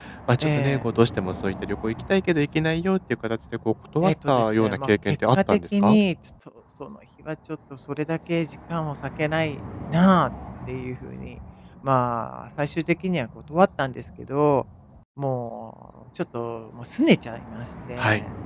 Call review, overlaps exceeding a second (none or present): present